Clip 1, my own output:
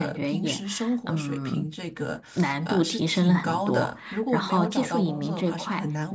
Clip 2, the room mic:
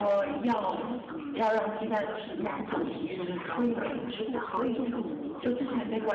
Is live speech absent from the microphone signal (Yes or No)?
No